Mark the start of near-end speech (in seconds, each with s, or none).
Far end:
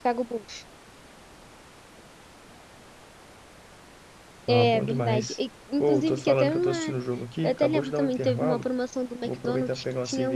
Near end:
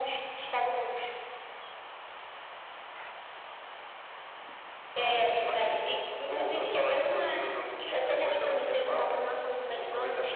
none